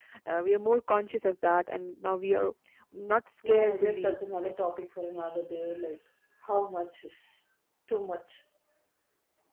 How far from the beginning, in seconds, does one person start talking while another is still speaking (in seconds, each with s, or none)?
3.5 s